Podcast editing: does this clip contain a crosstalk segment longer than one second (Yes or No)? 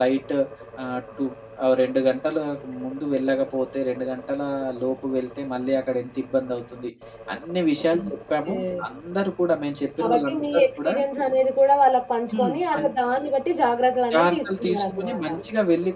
Yes